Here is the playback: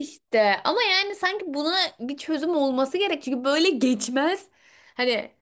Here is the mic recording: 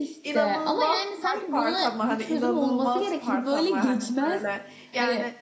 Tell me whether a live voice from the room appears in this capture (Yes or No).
Yes